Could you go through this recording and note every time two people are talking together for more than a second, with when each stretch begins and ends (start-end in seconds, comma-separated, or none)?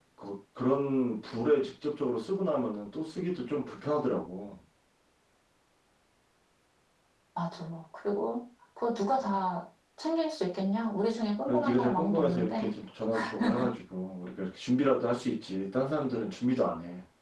11.4-12.7